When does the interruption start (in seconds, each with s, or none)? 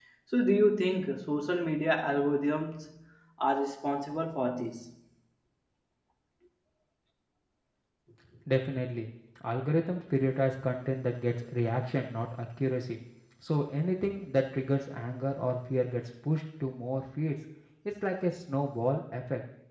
none